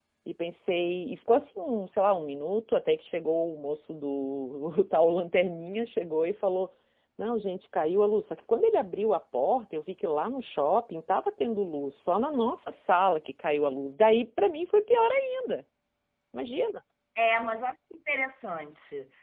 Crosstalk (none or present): none